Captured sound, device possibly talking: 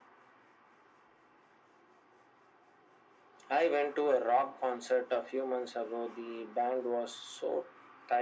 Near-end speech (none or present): none